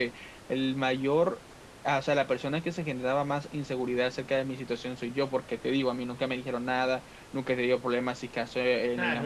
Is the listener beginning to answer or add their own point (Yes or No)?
Yes